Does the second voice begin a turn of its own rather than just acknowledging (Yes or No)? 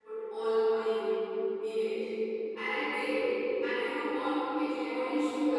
No